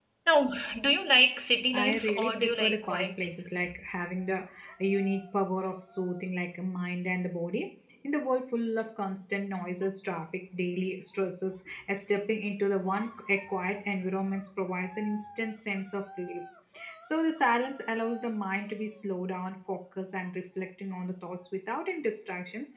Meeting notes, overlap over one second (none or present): present